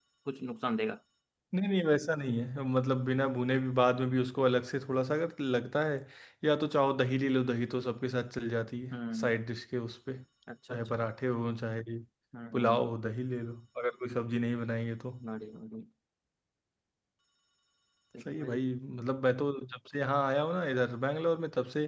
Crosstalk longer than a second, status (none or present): none